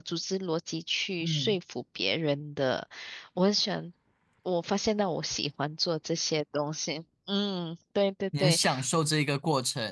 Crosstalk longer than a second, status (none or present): none